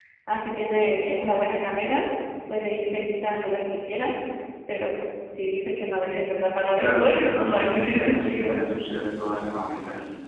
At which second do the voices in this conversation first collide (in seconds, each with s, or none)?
6.7 s